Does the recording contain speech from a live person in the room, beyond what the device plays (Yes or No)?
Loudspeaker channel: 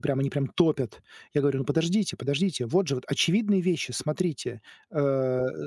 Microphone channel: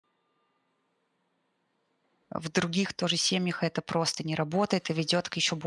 Yes